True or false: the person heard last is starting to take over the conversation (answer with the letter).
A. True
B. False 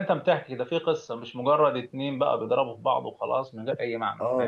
A